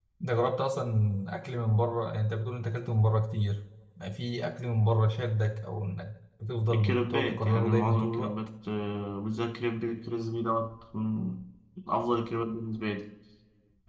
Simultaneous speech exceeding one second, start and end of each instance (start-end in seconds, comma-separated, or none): 6.7-8.3